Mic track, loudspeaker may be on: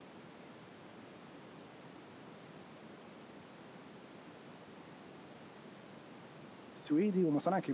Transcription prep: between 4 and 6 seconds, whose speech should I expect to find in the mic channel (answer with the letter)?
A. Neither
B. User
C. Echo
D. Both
A